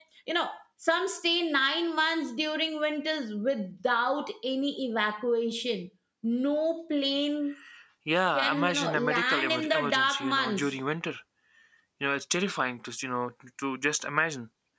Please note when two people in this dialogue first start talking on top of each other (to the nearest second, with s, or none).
8 s